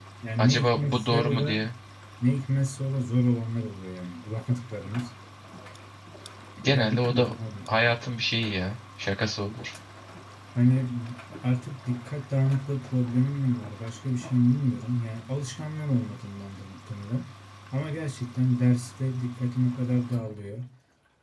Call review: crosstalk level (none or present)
present